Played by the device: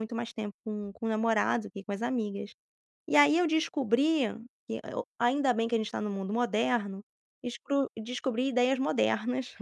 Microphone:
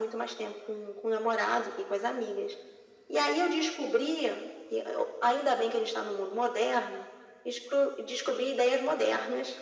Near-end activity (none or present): none